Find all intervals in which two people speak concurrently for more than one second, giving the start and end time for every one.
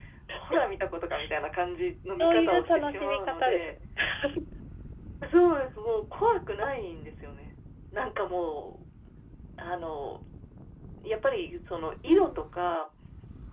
2.2-3.7

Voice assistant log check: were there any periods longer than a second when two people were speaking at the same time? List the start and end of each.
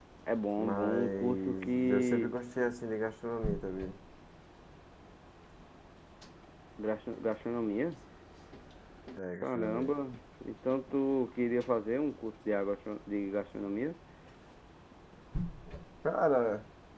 0.6-2.3

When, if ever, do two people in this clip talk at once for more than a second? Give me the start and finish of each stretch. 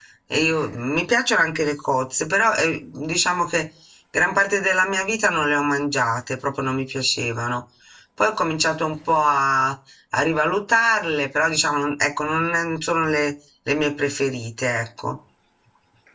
none

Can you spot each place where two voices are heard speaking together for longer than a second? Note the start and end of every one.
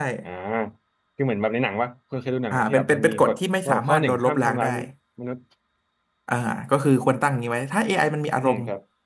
2.5-4.7

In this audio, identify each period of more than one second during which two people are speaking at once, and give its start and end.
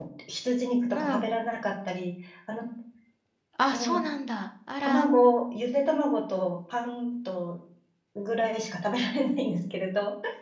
none

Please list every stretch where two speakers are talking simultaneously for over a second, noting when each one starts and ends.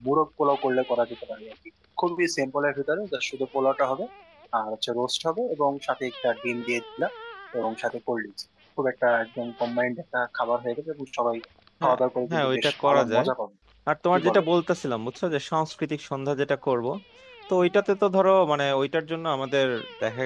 11.8-13.2

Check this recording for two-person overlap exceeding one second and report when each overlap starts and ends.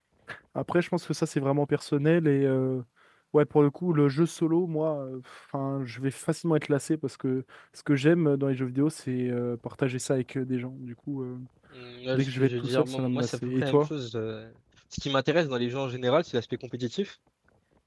12.1-13.8

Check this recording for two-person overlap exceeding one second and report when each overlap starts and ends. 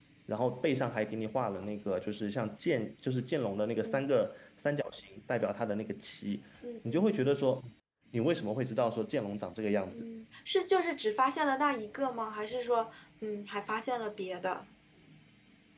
none

